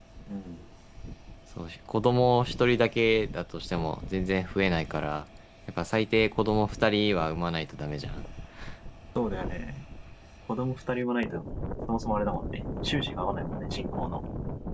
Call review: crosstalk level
none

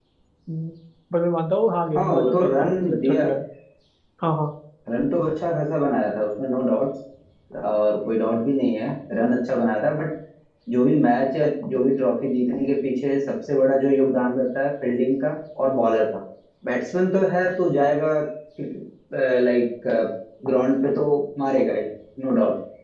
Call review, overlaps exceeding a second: present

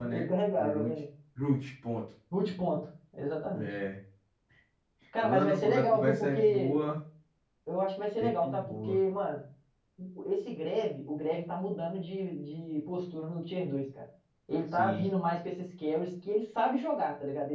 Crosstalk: present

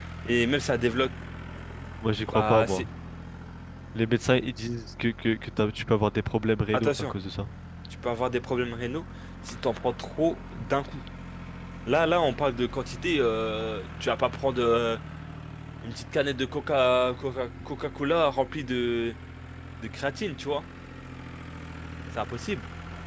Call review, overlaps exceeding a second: none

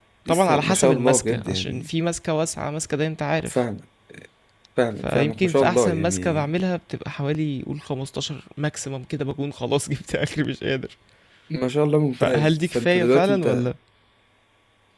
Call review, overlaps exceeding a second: present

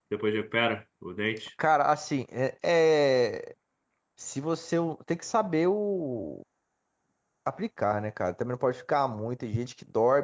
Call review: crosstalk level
none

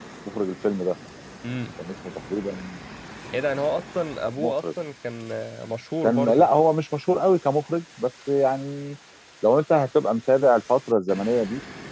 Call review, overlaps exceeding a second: none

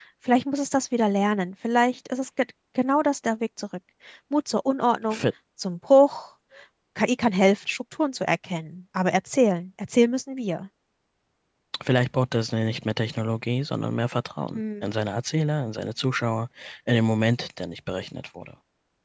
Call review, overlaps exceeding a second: none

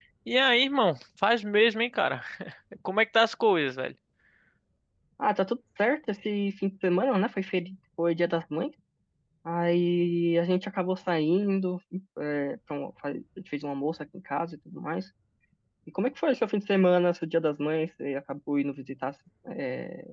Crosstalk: none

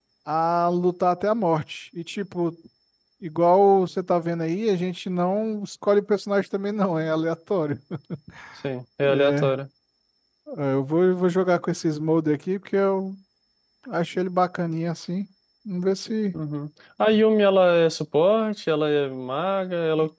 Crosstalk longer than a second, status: none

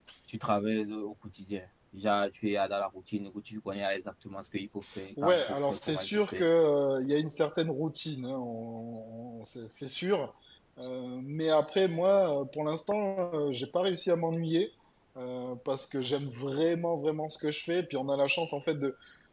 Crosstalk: present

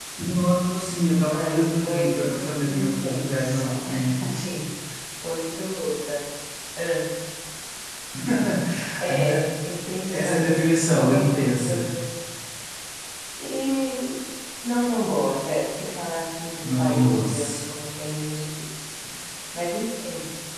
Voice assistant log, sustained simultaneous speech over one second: present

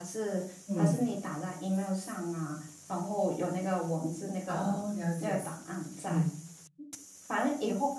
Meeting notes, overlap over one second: none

